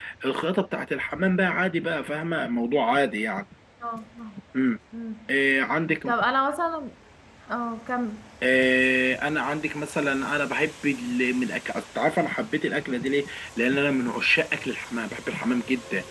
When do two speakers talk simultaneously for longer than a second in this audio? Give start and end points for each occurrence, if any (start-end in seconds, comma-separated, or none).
none